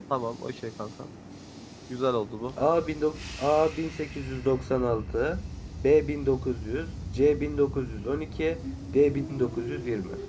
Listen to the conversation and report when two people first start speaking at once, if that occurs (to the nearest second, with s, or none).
none